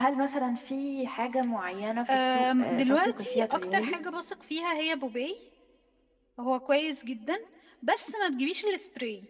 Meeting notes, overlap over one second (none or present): present